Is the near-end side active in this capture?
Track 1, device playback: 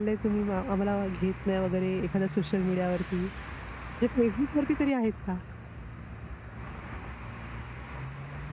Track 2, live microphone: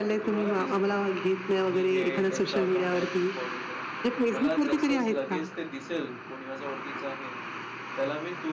Yes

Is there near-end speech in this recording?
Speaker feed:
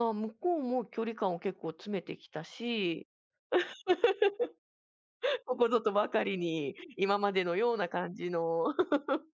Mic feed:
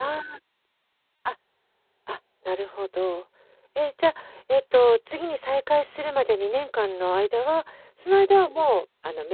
Yes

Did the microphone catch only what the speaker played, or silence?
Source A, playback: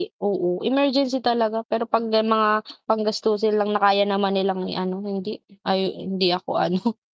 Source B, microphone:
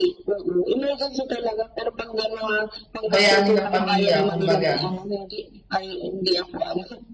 No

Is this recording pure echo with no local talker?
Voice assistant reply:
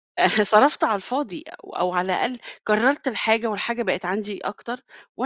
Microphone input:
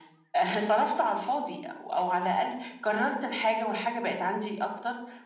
Yes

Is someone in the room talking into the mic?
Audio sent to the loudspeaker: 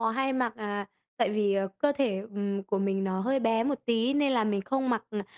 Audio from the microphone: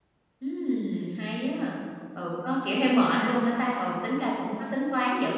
Yes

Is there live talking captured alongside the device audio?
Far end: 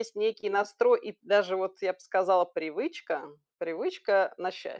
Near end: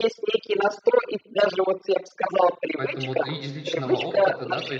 Yes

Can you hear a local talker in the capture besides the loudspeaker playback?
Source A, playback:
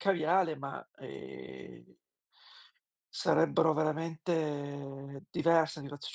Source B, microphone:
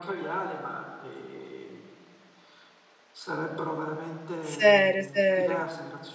Yes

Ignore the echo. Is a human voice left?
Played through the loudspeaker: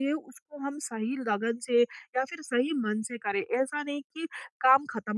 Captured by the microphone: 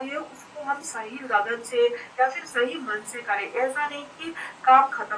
No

